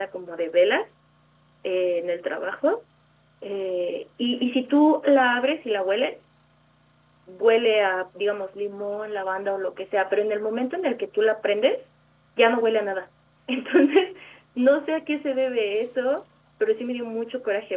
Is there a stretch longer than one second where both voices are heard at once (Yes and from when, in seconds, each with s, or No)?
No